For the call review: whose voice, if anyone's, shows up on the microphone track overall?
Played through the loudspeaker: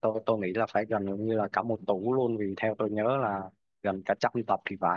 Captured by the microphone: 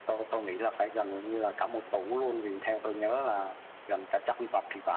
echo only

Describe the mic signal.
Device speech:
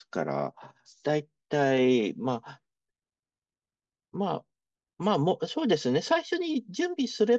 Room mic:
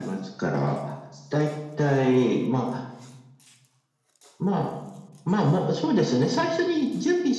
echo only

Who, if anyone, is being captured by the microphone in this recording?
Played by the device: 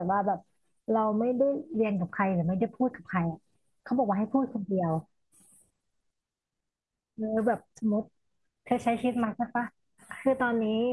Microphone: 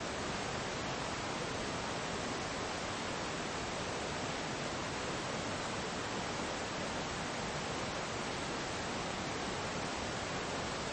neither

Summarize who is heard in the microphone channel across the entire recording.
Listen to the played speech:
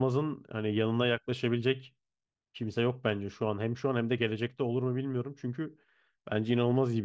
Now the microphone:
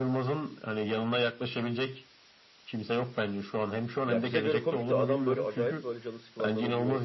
both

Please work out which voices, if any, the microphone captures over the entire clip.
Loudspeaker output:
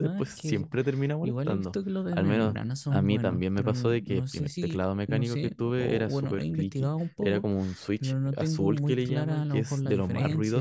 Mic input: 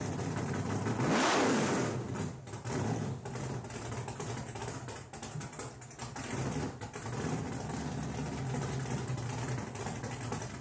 neither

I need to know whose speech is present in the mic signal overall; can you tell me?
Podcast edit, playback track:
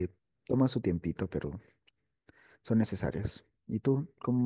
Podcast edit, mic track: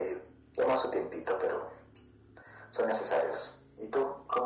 echo only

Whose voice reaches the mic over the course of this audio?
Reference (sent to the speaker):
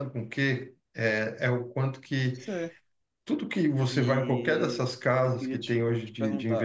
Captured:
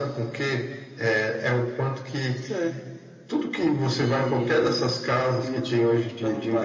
echo only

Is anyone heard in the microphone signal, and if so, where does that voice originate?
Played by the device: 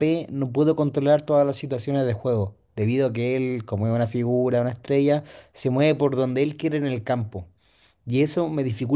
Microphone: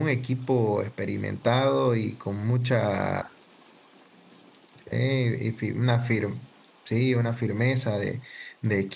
user only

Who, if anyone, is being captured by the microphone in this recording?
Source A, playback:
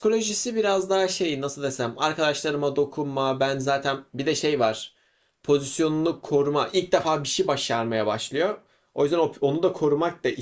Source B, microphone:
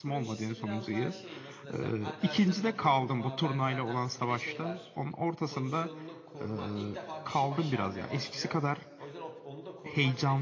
both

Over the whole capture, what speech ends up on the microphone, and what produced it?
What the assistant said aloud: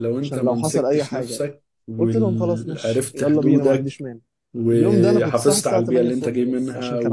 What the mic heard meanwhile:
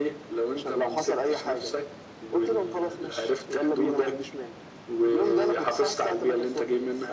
echo only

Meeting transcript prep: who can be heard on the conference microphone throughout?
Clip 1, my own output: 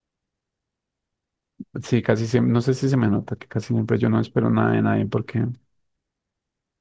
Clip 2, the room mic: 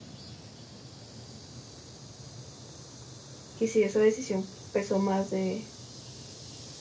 user only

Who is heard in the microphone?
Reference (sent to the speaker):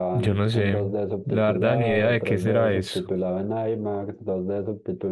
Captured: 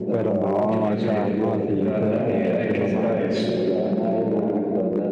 both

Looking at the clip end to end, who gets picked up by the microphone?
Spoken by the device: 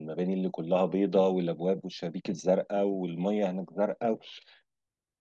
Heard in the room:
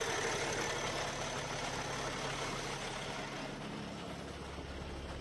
neither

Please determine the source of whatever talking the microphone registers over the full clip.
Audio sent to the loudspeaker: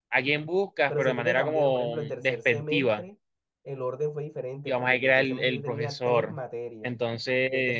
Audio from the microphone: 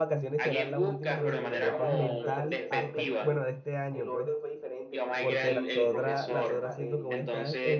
both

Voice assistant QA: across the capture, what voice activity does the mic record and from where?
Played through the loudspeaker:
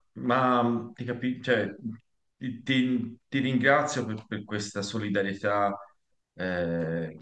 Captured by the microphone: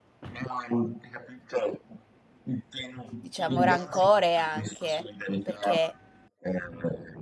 both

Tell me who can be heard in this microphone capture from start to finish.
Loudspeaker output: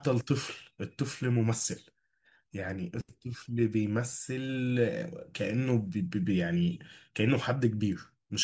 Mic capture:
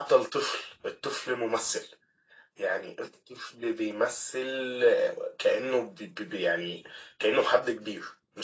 echo only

